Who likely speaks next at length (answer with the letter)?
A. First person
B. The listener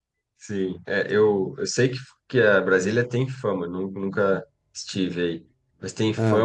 A